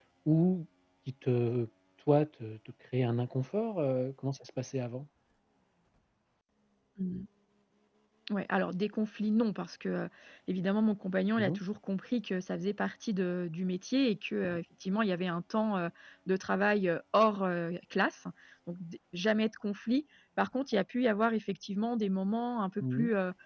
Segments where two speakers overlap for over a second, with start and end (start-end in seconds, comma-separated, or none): none